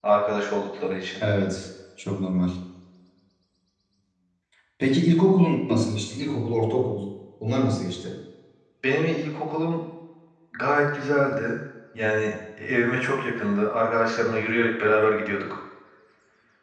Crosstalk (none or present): none